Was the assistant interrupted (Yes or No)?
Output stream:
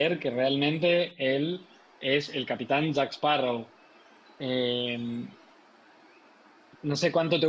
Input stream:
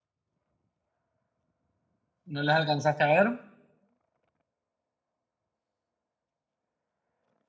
Yes